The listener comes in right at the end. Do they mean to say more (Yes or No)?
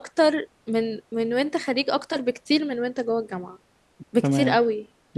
Yes